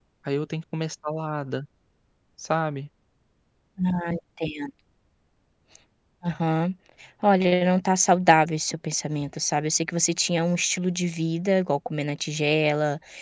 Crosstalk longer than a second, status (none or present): none